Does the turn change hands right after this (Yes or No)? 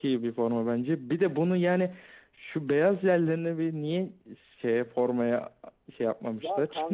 Yes